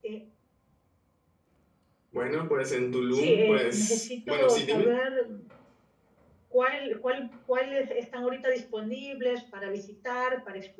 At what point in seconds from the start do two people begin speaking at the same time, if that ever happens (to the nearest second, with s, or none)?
3 s